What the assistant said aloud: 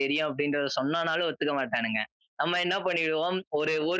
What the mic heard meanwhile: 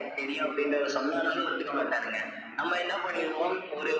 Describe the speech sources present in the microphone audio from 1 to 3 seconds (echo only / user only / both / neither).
echo only